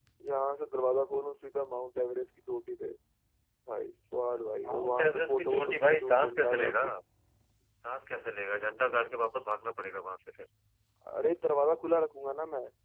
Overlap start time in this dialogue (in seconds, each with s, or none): 4.7 s